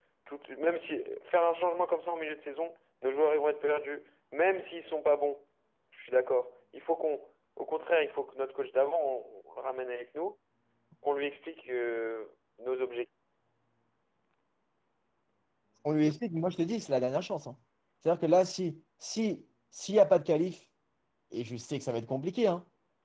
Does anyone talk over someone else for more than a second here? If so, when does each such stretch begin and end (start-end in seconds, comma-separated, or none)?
none